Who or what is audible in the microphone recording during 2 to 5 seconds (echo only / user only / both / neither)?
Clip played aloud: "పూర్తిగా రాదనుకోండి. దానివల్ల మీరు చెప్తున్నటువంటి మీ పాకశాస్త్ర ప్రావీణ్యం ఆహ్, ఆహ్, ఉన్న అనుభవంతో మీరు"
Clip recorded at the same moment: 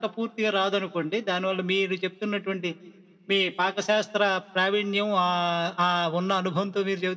echo only